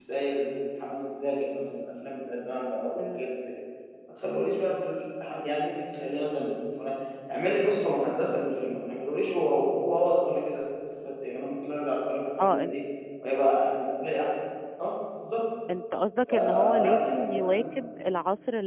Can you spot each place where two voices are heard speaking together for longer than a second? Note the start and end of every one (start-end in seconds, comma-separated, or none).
16.3-17.6